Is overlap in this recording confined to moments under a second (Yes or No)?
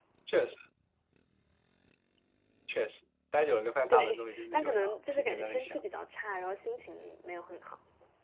No